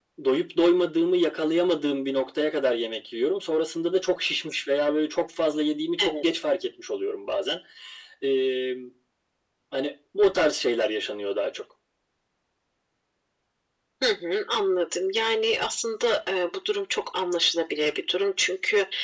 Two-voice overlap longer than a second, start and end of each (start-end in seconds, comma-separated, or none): none